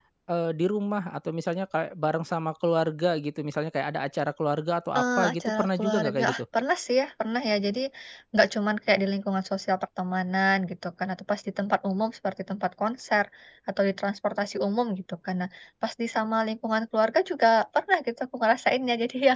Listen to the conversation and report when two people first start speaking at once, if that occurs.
5.0 s

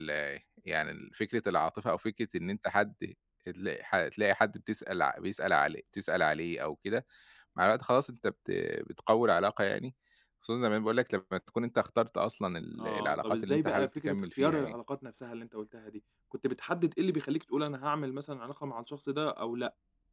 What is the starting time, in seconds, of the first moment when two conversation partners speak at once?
12.8 s

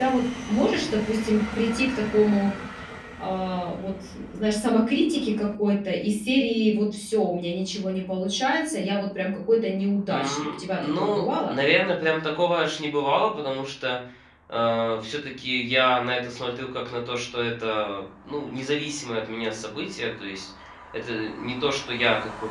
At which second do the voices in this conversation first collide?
10.1 s

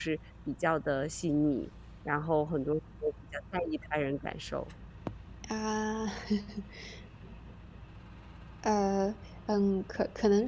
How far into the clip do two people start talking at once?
none

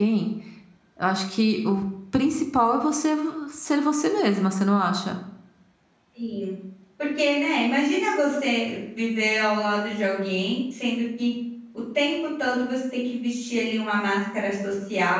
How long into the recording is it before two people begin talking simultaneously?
none

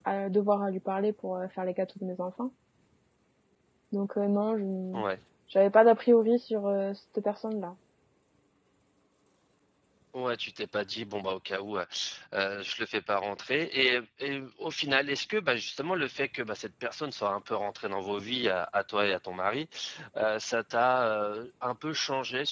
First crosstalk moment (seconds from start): none

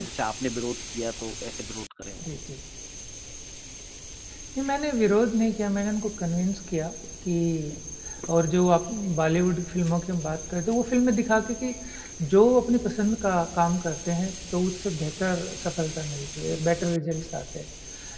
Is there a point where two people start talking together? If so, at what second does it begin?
none

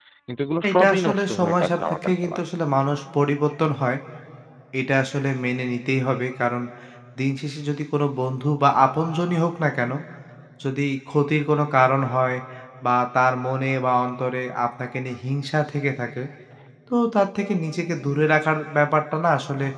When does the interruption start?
0.7 s

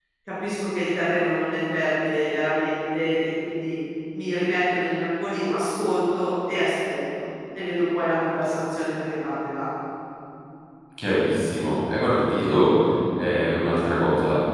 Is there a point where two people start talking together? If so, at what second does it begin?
none

